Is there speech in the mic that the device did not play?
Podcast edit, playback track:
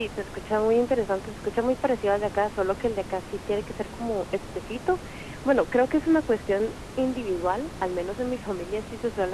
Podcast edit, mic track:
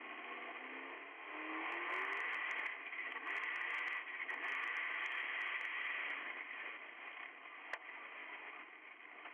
No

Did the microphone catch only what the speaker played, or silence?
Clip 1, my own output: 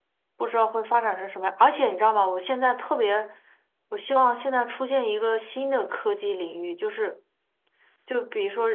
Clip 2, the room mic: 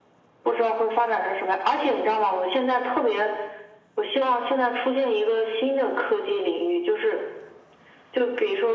Yes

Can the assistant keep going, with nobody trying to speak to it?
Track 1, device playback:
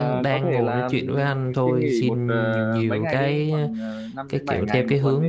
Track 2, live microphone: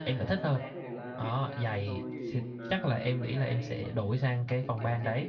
No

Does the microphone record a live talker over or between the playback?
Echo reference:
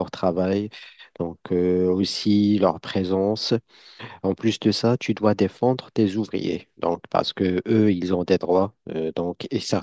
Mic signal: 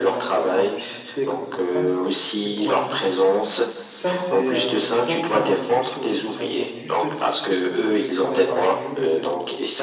Yes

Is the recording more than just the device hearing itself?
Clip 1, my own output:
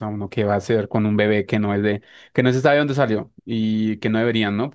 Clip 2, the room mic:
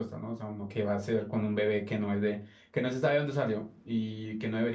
No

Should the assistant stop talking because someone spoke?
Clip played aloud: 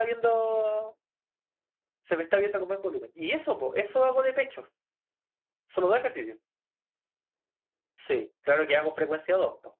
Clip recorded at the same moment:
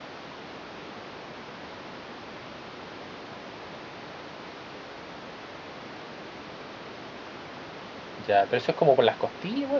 Yes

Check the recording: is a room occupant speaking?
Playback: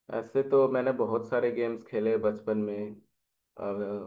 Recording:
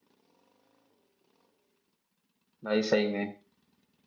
Yes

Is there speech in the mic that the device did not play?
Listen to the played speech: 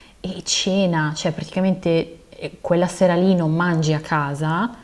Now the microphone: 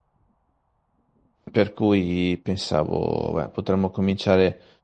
Yes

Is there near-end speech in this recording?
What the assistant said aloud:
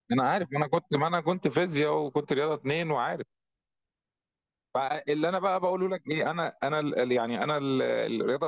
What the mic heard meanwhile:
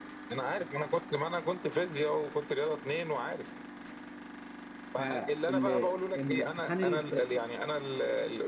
Yes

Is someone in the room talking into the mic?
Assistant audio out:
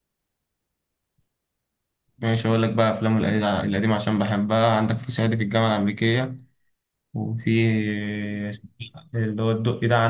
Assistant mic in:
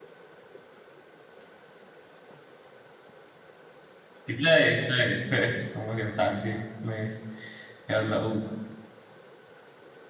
Yes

